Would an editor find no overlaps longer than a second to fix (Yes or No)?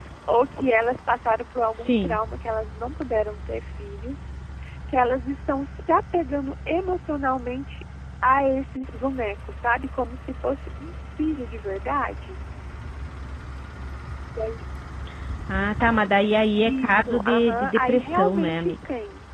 No